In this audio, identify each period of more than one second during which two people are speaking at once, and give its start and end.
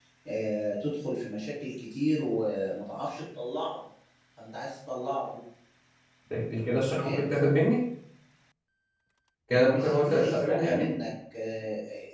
9.6-10.8

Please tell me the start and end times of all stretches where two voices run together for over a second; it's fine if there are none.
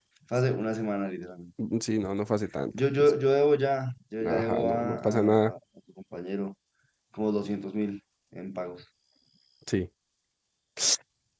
4.2-5.5

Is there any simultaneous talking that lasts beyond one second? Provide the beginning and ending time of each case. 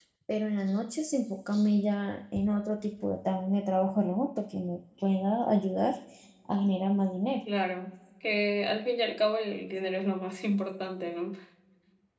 none

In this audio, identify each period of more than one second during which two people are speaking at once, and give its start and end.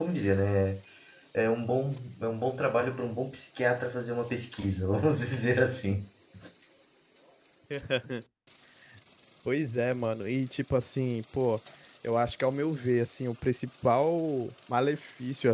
none

